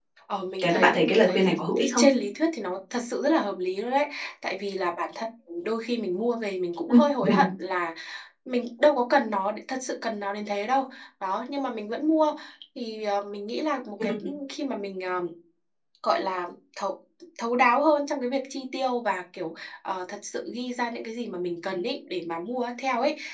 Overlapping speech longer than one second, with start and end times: 0.6-2.0

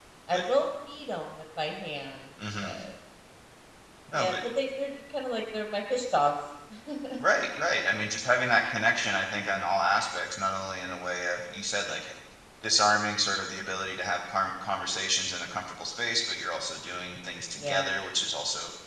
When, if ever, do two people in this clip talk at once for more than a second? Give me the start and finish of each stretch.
none

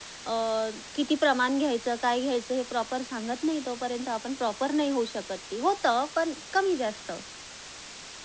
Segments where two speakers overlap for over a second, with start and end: none

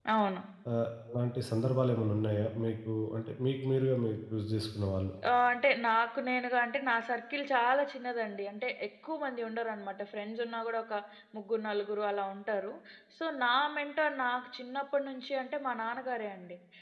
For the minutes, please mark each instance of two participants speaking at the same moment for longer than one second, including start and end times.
none

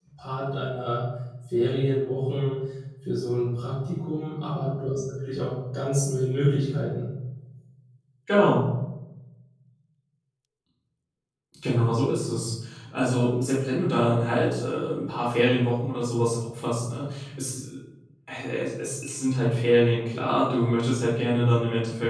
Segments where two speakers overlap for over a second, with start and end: none

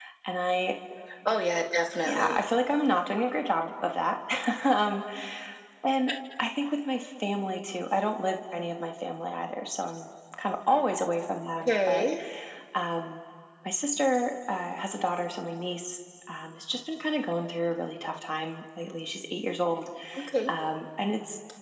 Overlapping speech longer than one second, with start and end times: none

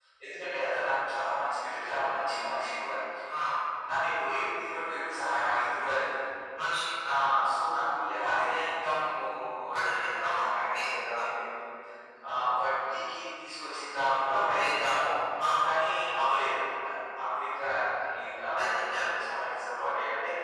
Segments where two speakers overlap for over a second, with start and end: 9.8-11.2

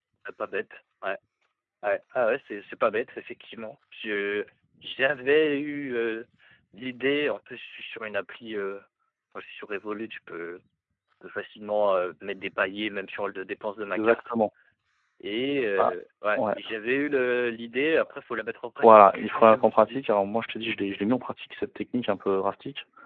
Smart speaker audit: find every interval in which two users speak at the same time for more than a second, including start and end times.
18.8-20.0

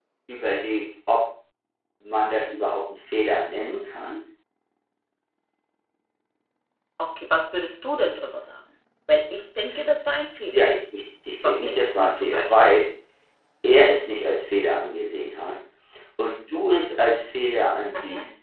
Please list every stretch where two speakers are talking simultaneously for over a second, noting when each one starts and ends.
11.4-12.8

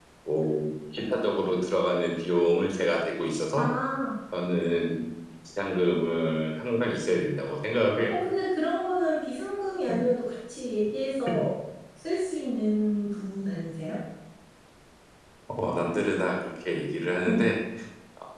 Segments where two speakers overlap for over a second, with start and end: none

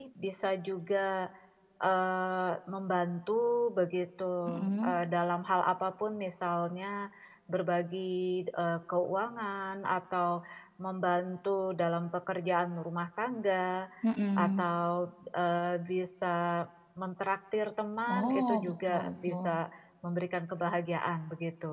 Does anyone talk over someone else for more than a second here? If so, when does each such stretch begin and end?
18.1-19.6

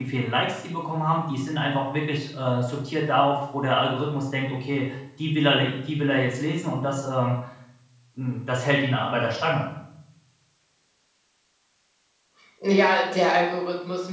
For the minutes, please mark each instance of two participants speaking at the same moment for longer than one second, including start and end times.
none

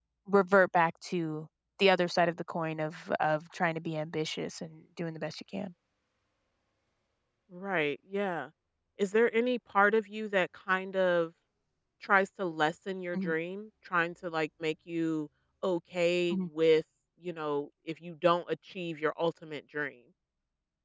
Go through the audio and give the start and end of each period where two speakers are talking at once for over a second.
none

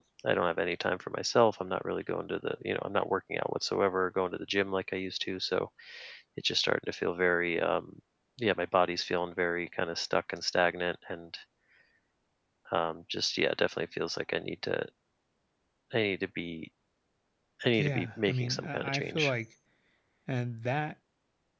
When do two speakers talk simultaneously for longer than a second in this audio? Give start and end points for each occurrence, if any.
17.7-19.3

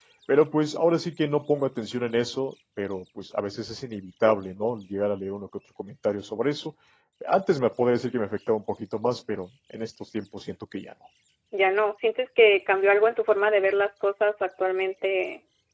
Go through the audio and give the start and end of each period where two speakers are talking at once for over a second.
none

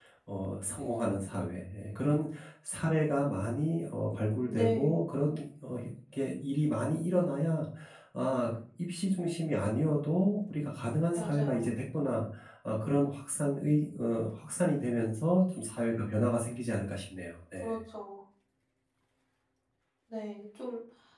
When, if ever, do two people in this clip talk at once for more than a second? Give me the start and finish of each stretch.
none

